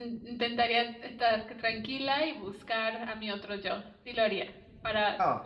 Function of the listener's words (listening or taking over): listening